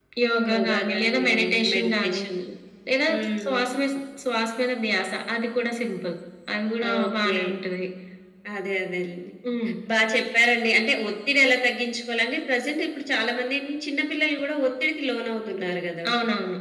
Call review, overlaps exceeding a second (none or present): present